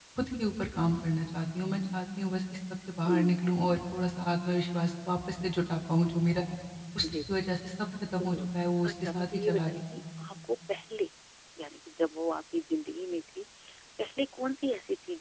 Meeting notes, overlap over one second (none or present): present